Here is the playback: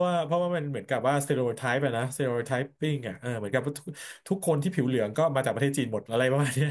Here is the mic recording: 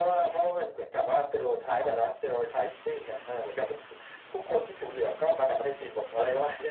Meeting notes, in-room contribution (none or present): none